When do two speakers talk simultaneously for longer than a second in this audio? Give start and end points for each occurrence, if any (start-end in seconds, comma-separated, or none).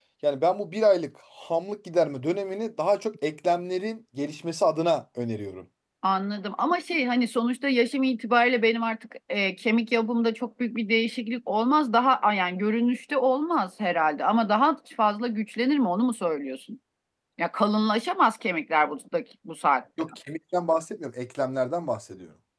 none